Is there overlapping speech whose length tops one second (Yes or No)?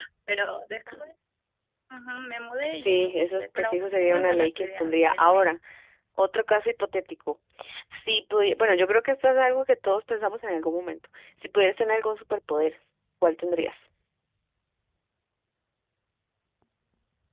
Yes